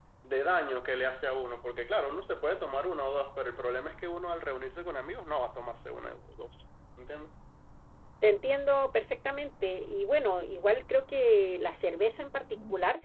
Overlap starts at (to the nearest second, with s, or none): none